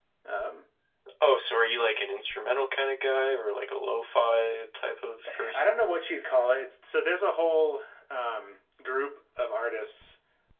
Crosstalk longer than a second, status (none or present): none